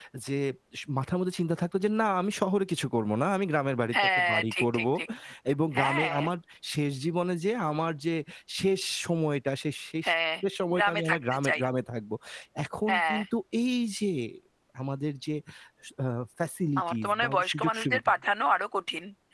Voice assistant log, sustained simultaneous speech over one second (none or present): present